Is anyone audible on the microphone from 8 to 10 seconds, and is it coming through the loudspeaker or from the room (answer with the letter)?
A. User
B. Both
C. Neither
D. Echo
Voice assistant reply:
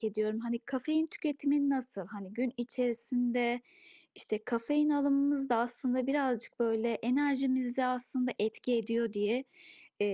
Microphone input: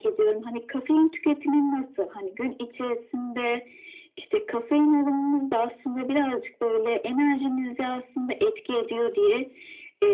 D